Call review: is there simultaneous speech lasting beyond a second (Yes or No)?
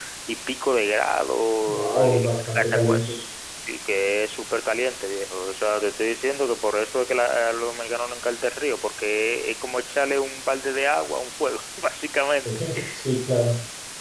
Yes